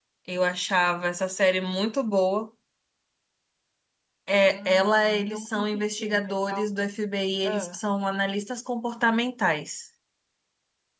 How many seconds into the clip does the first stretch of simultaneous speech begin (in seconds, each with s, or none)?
4.4 s